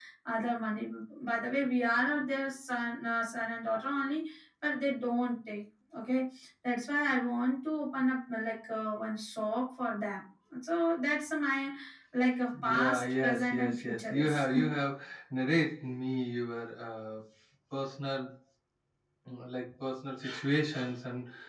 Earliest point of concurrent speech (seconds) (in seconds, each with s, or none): 12.6 s